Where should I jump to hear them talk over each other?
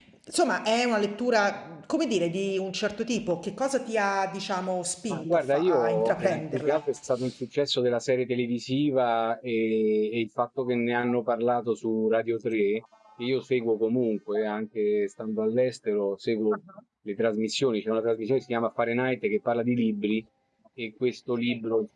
5 s

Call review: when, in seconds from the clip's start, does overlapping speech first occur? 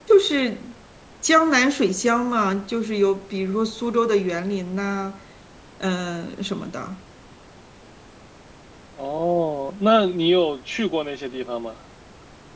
none

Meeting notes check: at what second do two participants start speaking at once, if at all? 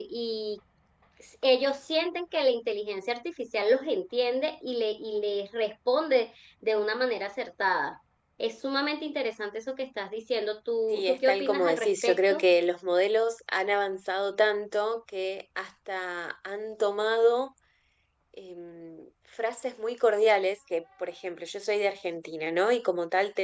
11 s

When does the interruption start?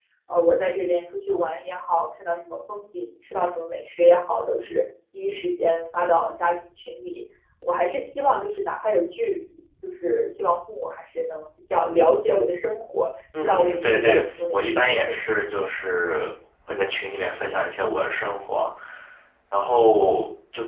13 s

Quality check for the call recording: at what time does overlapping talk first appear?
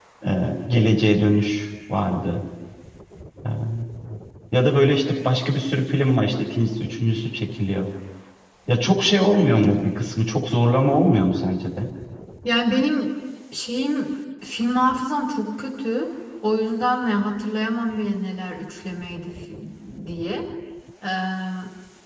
none

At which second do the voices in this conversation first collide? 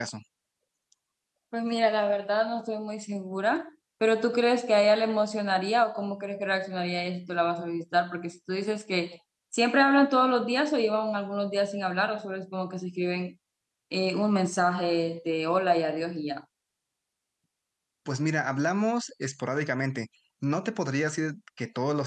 none

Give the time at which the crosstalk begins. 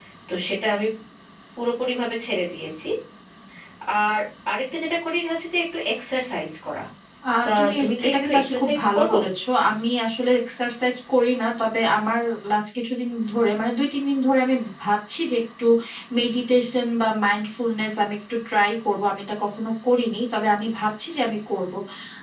7 s

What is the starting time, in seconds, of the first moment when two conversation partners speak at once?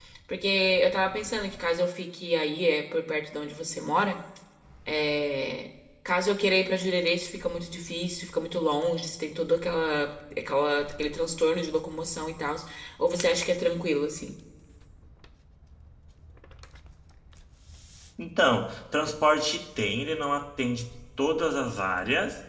none

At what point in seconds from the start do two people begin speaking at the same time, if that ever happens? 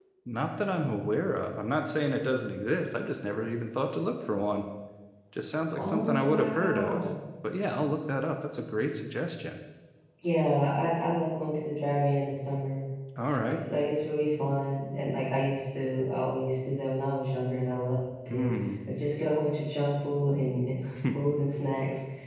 6 s

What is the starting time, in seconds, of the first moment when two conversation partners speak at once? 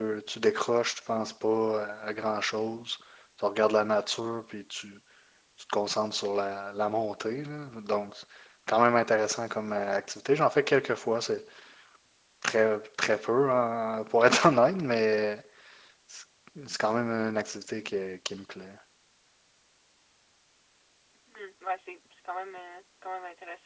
none

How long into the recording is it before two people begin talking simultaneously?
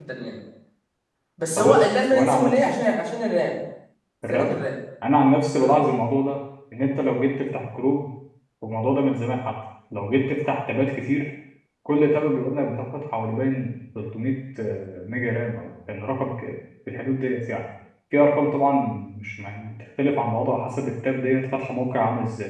2 s

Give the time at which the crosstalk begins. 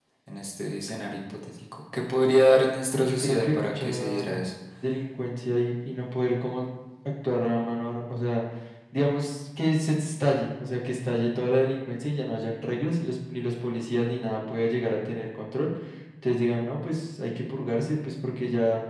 3 s

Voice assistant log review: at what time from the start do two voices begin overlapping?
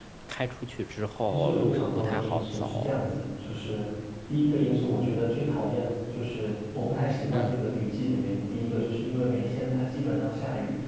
1 s

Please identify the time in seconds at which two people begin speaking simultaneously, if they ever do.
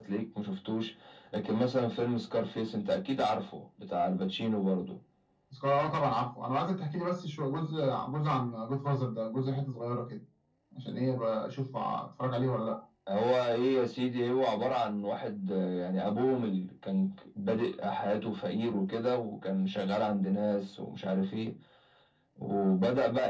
none

